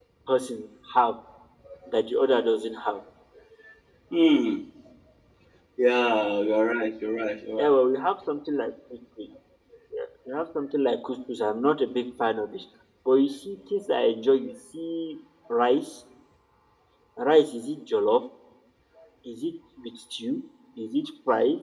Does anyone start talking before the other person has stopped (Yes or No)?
No